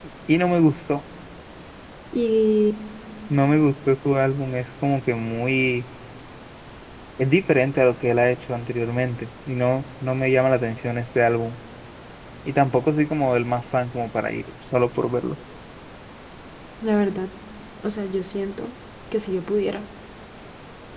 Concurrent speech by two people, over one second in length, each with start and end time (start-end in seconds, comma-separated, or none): none